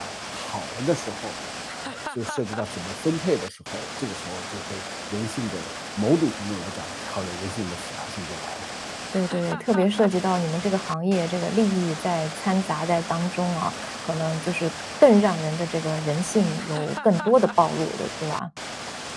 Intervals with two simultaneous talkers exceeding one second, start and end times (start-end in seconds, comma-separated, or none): none